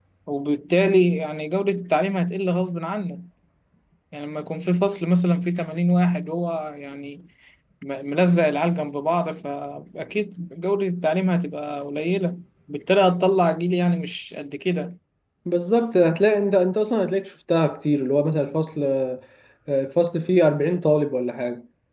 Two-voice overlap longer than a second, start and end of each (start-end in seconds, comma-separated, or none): none